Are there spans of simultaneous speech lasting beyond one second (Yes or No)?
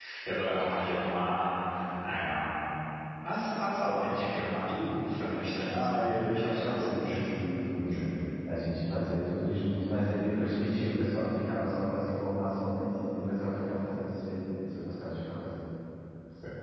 Yes